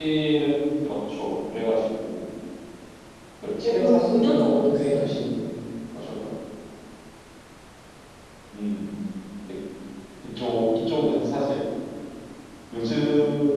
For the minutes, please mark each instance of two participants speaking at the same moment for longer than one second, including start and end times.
3.6-5.2

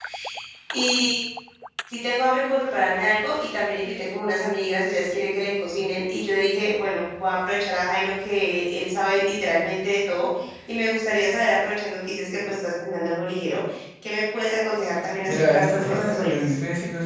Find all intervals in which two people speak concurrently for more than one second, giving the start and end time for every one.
15.3-16.5

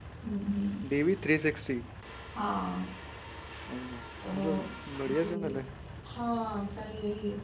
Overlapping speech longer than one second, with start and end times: none

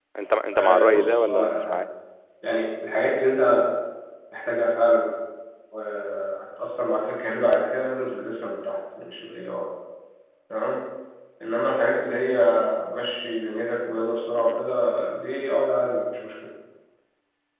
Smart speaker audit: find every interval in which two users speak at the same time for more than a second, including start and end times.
0.5-1.8

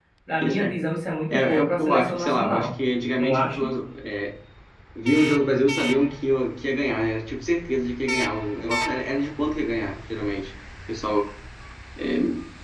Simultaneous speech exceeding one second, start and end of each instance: 1.3-2.7

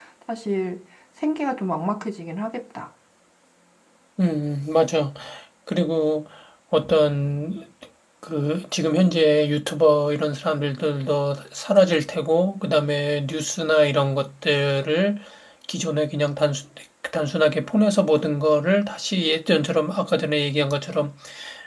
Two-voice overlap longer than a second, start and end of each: none

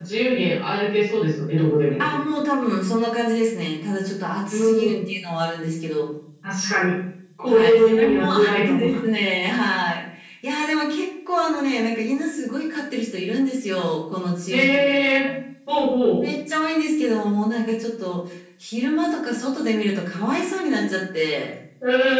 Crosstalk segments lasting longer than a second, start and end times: 7.5-8.8

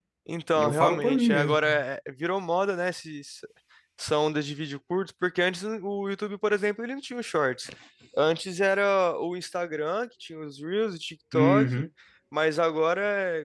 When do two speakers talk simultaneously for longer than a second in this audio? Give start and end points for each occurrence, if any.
0.6-1.8

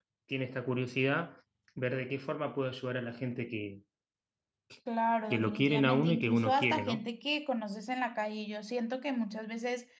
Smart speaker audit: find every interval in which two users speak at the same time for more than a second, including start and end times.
5.3-7.0

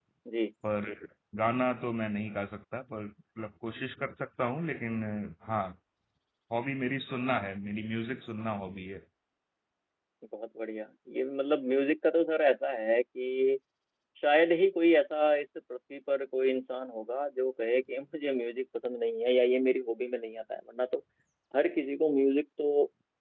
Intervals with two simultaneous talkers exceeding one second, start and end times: none

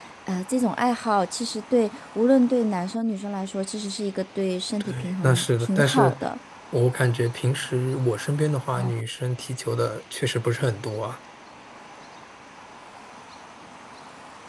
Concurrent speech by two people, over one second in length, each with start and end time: 4.8-6.1

